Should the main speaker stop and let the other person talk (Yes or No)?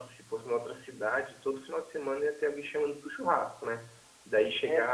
No